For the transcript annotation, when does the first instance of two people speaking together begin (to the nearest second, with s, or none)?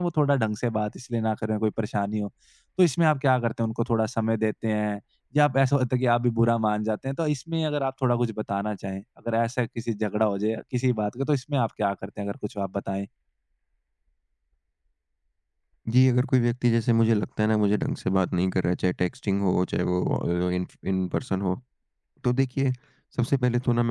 none